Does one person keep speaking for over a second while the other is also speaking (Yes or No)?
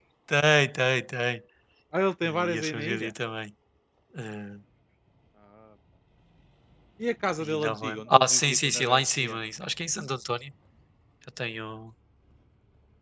Yes